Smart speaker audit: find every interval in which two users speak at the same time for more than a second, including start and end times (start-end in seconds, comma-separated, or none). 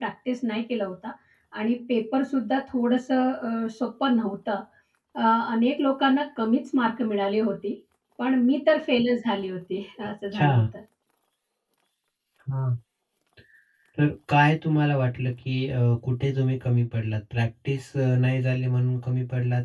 none